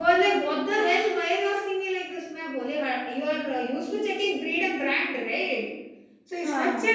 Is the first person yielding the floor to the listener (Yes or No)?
No